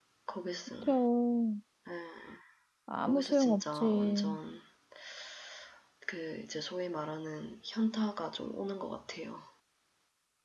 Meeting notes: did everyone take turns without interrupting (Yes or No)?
No